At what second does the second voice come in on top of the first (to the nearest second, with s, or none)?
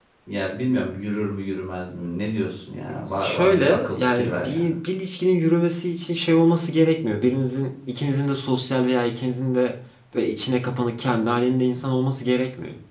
3 s